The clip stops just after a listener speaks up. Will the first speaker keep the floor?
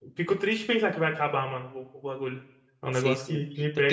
No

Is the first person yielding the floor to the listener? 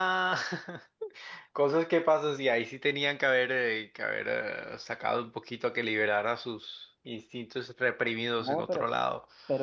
Yes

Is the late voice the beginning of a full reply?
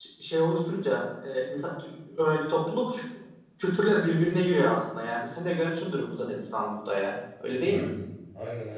Yes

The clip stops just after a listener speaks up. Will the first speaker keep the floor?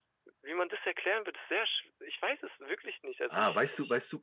No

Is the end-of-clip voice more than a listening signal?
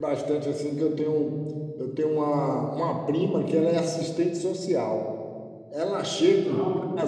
No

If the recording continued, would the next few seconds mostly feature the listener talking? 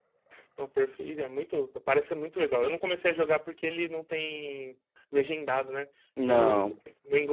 No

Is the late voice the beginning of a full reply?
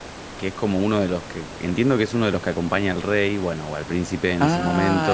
Yes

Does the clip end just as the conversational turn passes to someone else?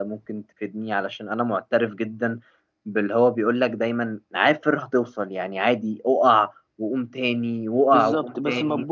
Yes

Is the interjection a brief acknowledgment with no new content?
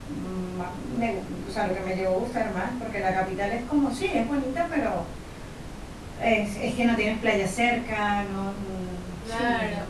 No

